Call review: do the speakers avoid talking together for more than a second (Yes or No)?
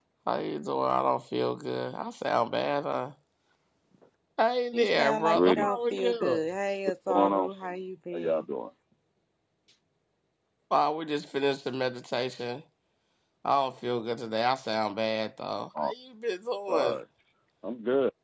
No